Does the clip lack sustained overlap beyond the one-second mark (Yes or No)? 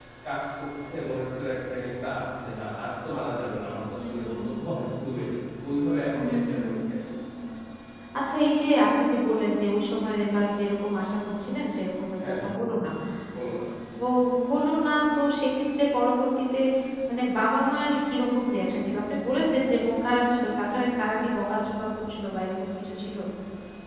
Yes